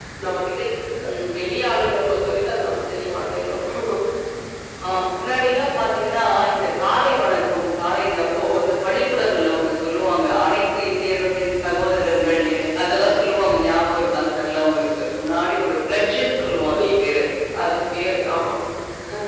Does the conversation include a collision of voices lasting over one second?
No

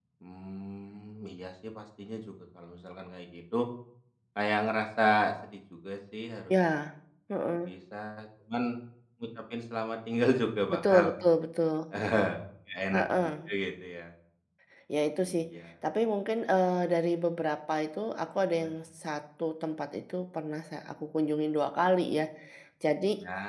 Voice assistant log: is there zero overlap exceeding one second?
Yes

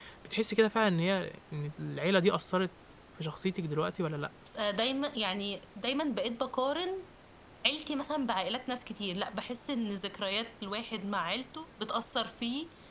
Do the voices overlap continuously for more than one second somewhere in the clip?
No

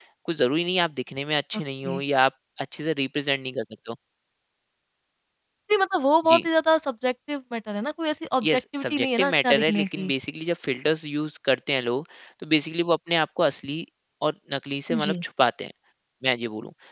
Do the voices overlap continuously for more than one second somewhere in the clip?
Yes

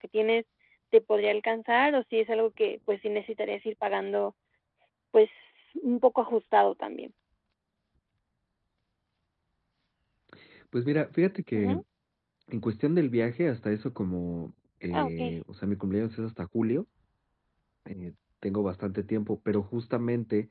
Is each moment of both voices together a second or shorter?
Yes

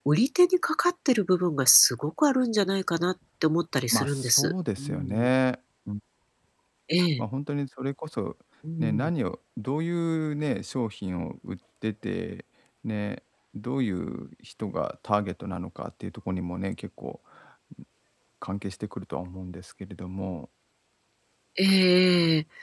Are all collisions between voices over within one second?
No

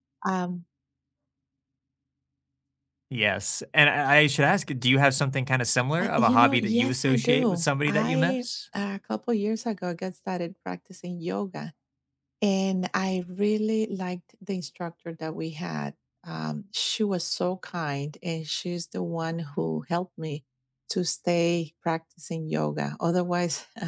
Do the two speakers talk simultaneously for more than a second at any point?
Yes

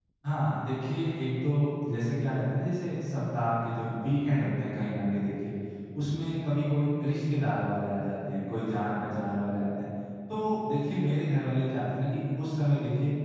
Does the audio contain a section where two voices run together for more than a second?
No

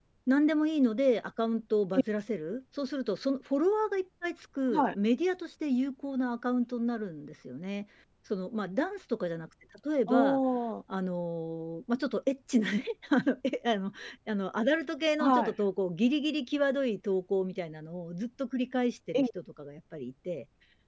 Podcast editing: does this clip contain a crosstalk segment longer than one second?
No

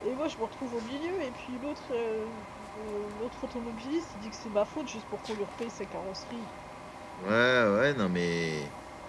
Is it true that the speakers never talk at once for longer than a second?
Yes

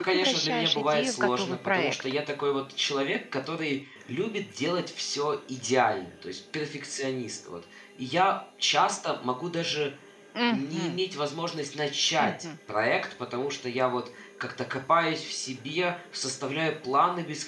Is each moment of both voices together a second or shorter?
No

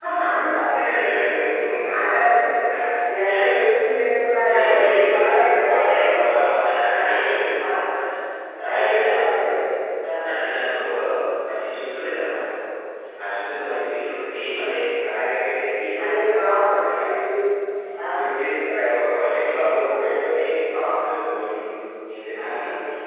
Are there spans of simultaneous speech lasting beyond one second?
Yes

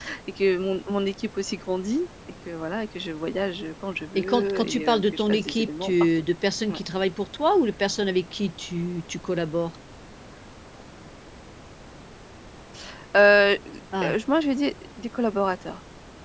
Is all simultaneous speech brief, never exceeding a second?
No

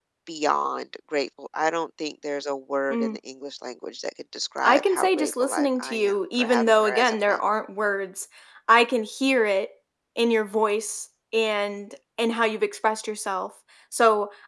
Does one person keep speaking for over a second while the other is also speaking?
Yes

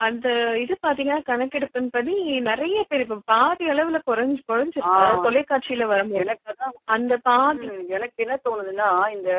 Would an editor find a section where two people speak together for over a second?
No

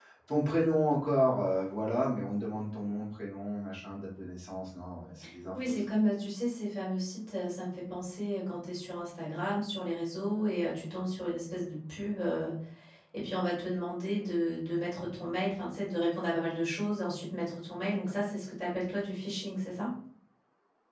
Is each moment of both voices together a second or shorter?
Yes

